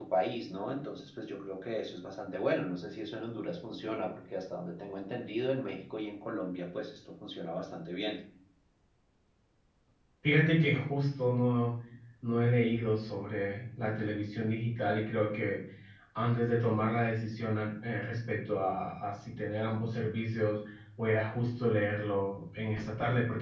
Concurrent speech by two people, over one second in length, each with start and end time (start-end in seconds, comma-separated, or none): none